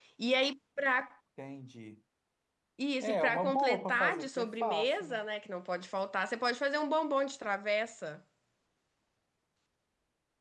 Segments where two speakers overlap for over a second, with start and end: 3.0-5.2

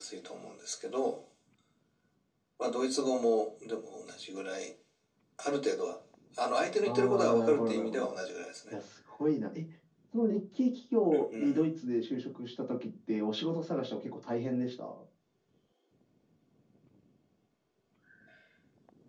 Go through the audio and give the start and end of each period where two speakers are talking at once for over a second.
6.8-8.2

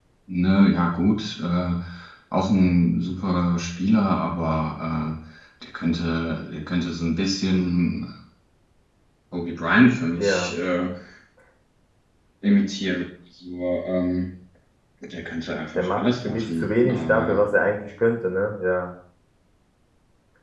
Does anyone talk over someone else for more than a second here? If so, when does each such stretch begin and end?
15.8-17.4

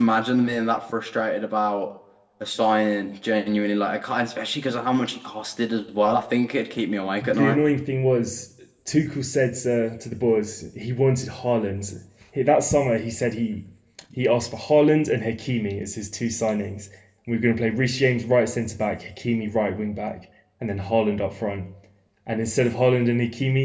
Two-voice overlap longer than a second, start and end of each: none

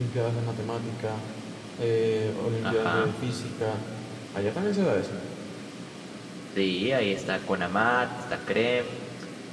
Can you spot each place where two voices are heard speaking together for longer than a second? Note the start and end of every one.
none

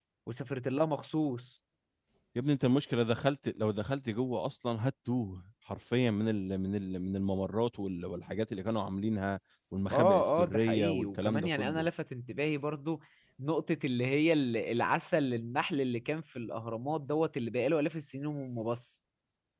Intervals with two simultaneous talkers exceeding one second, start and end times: 9.9-11.9

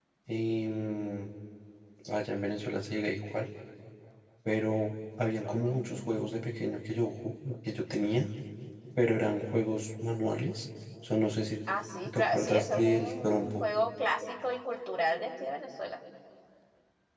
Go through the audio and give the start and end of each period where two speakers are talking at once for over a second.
12.1-13.7

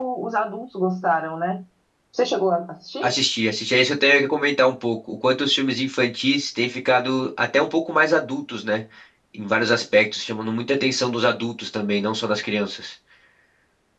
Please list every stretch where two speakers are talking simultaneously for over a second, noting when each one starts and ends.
none

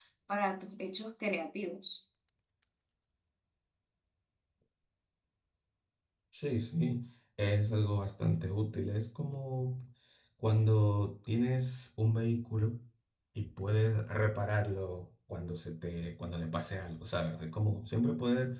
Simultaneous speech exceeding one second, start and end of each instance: none

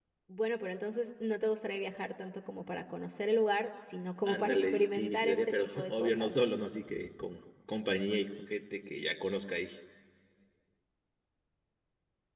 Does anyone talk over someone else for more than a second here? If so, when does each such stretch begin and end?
4.2-6.3

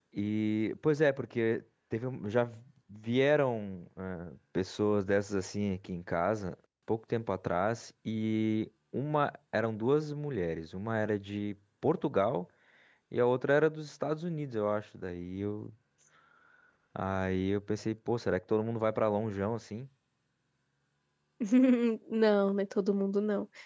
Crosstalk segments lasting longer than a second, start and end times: none

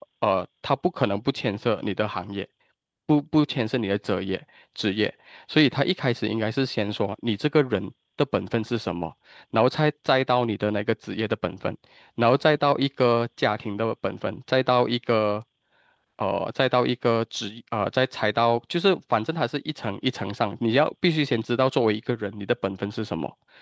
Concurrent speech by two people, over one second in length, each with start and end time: none

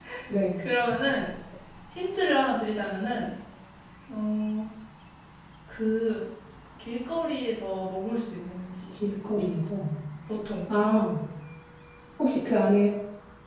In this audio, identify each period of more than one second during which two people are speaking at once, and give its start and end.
none

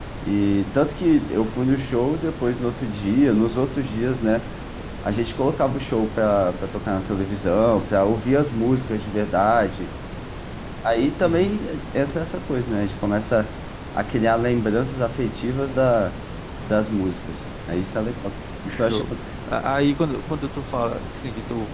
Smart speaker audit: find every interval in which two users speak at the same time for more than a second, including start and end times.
none

